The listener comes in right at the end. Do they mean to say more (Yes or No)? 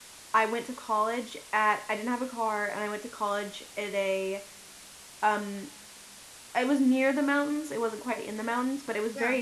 No